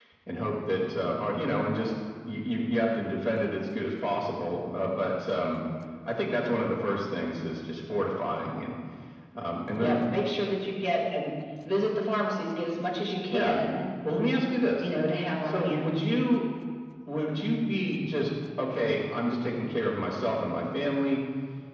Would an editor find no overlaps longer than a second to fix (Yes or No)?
Yes